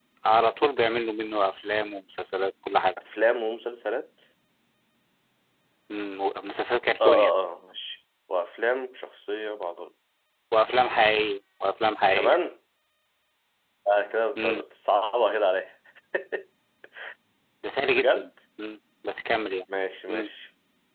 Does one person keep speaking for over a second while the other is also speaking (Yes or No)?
No